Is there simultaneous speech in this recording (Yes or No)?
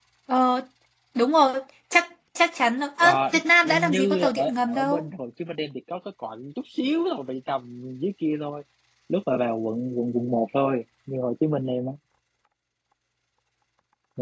Yes